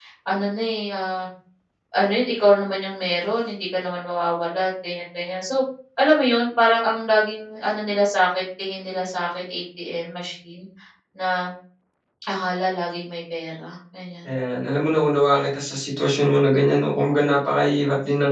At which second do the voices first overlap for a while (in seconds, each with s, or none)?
none